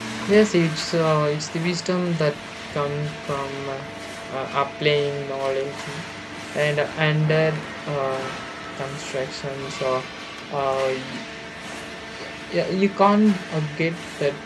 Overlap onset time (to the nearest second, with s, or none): none